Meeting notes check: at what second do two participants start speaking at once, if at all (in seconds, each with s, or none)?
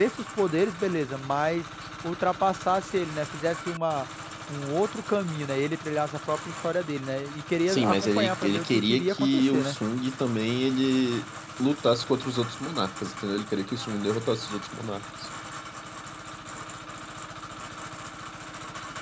7.7 s